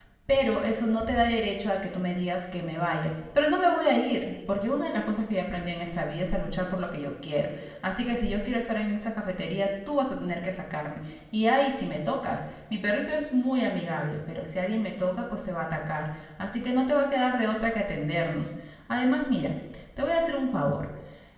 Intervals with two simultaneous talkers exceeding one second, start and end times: none

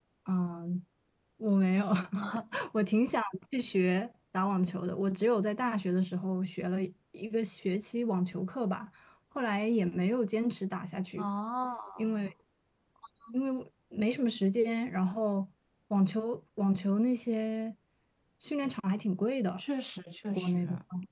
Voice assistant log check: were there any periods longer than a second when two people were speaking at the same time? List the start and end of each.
none

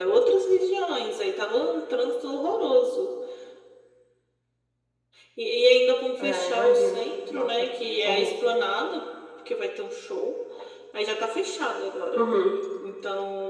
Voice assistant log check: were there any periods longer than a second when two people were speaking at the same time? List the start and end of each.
6.2-7.7

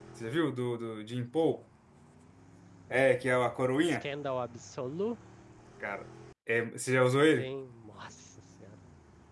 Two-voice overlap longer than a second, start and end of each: none

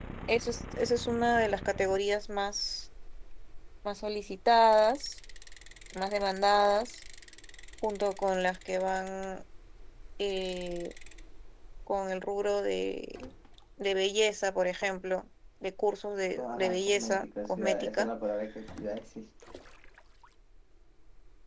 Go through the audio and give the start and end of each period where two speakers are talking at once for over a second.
16.4-18.1

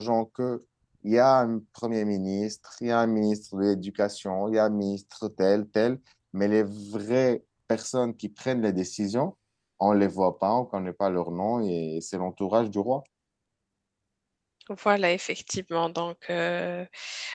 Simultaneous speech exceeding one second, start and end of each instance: none

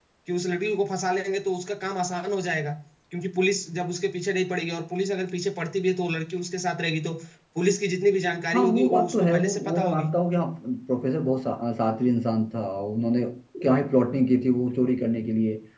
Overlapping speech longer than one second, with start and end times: 8.5-10.1

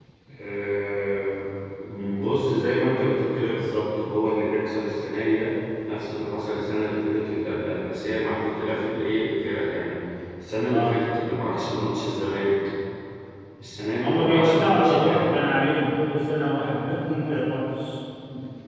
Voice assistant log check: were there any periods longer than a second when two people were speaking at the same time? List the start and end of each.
14.0-15.4

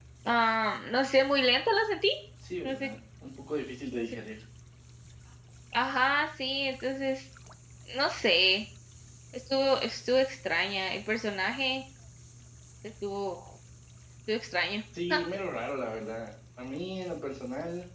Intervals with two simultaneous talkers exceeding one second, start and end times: none

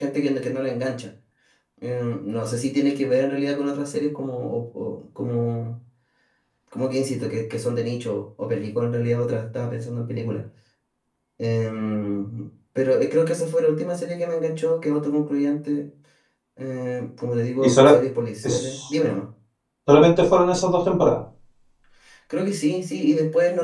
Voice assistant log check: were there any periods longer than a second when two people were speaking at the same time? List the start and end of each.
none

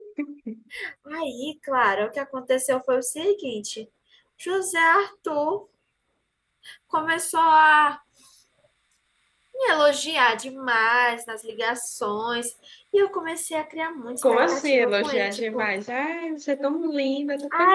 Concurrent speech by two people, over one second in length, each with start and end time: 14.2-15.7

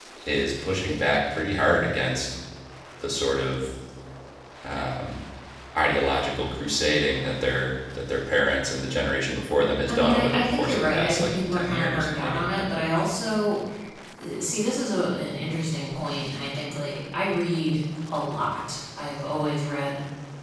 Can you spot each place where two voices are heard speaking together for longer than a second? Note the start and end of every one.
9.9-12.4

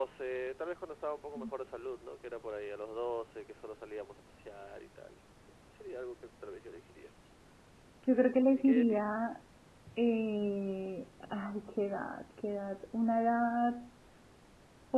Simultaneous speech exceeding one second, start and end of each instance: none

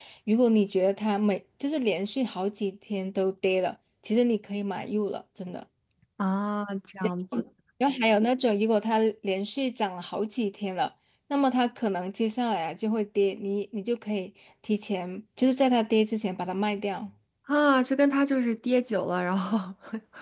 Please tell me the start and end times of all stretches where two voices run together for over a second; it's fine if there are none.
none

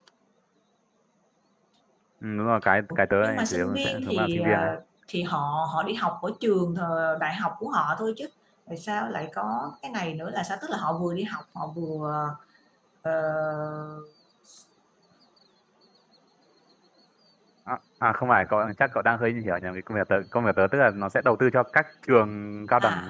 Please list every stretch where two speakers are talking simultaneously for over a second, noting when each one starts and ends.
2.9-4.7

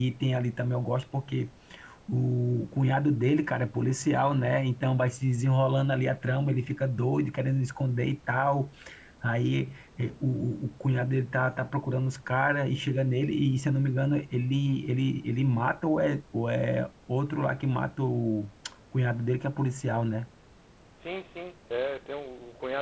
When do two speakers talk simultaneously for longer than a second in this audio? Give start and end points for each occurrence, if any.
none

